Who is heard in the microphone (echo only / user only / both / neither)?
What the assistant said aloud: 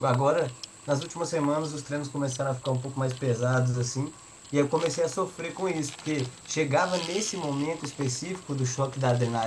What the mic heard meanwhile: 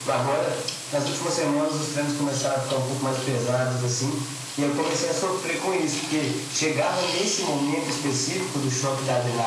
echo only